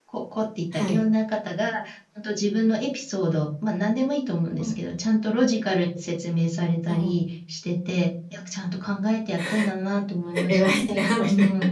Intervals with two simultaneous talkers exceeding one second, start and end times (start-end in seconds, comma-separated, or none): none